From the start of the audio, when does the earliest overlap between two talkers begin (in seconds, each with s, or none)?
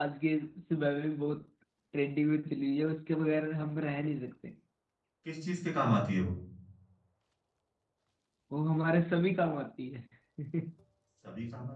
none